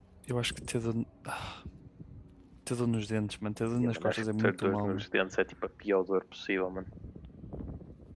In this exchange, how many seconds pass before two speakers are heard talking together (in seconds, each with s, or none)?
3.8 s